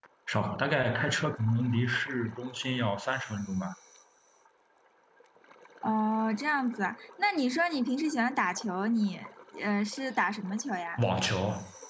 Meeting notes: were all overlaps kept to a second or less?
Yes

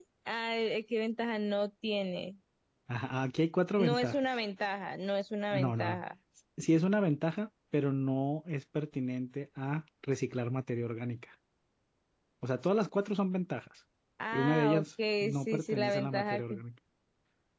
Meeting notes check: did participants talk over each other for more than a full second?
Yes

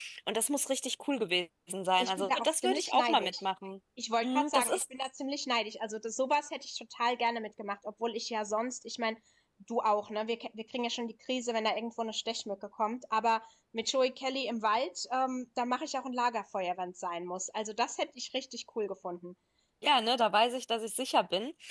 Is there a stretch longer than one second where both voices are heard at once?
Yes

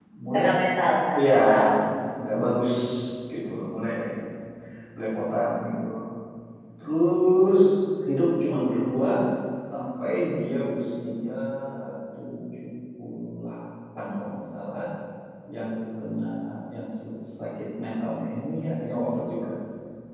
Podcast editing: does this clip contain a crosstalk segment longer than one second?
No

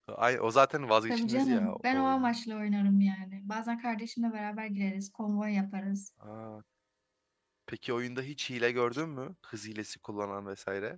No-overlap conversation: No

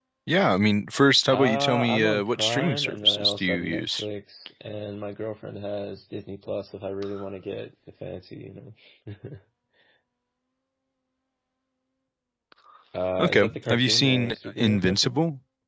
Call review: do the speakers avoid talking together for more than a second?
No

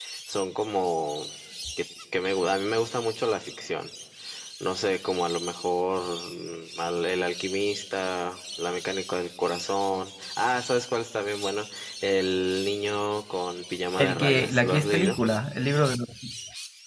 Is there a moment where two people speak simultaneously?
Yes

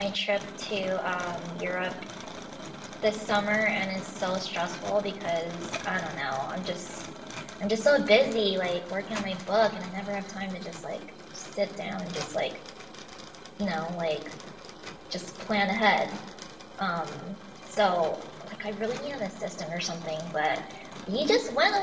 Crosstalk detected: No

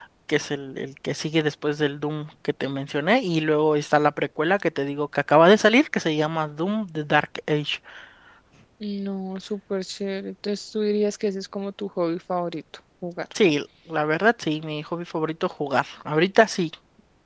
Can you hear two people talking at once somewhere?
No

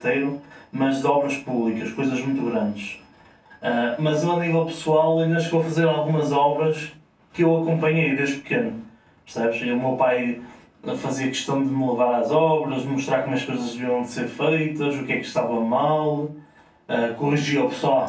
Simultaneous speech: No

